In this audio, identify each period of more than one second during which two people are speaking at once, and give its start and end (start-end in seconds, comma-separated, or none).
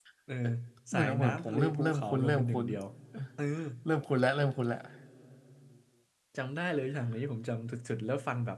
0.9-2.7